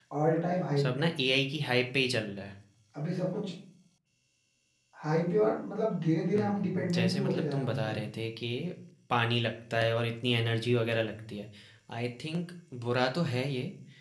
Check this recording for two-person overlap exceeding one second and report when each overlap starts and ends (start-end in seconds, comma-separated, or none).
6.4-8.0